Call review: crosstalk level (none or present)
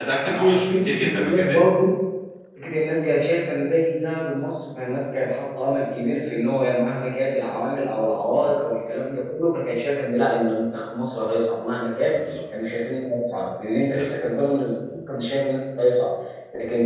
present